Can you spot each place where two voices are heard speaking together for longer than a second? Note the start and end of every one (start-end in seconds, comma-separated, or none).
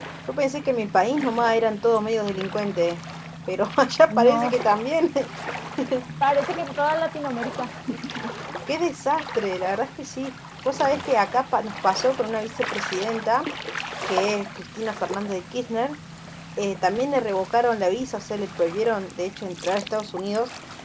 none